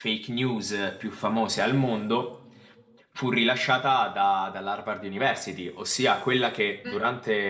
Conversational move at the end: listening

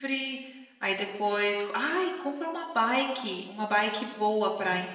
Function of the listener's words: listening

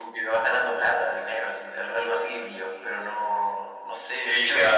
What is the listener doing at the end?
taking over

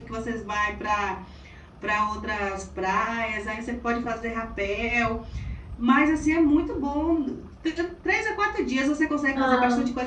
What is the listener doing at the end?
listening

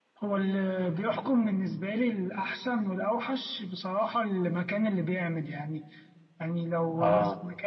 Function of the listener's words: listening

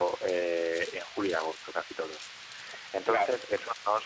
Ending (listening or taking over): listening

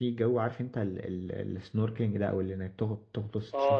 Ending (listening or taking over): taking over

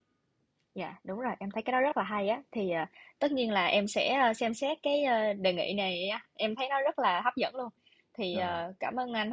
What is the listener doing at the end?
listening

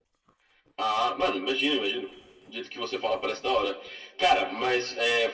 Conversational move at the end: listening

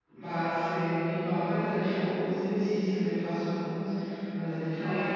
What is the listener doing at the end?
taking over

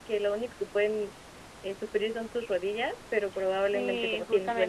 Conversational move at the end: taking over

